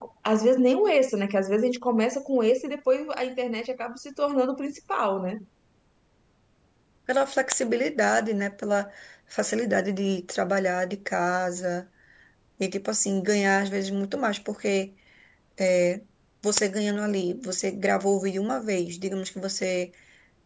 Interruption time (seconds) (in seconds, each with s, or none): none